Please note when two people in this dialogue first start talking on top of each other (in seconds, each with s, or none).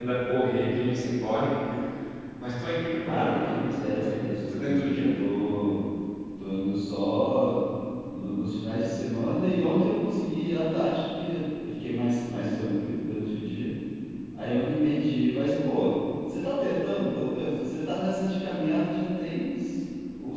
3.0 s